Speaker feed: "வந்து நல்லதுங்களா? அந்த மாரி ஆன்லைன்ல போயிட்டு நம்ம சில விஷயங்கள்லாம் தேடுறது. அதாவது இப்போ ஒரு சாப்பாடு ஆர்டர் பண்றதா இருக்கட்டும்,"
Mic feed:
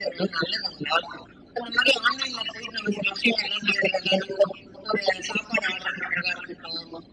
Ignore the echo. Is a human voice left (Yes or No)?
No